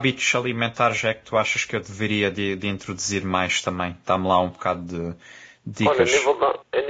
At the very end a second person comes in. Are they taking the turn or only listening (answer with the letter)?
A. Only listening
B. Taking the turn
B